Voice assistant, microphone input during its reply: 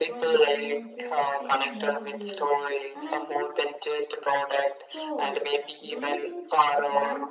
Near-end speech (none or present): present